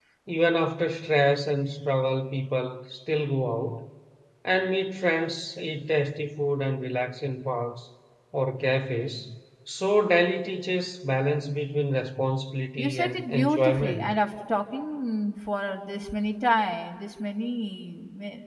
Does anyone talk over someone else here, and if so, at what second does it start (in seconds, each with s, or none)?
12.8 s